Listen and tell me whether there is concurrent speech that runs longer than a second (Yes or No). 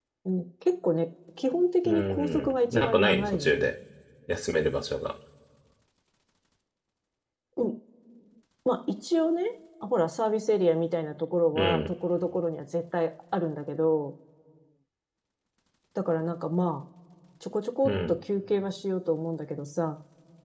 Yes